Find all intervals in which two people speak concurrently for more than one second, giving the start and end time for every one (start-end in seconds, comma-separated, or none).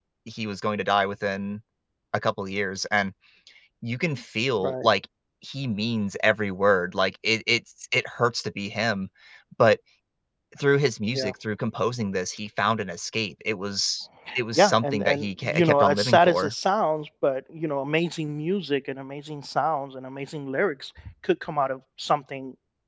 14.6-16.5